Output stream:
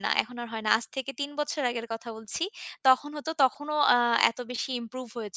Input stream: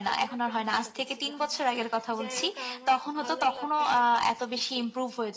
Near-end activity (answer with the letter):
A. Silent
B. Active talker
B